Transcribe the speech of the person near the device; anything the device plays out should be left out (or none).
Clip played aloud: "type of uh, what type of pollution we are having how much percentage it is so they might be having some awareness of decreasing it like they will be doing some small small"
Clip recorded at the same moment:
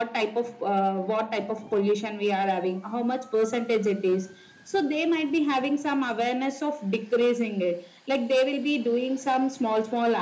none